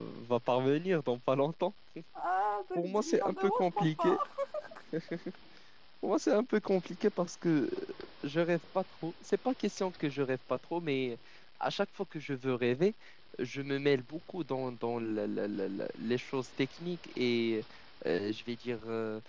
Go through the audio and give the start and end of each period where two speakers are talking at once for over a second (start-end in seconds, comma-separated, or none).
2.8-4.2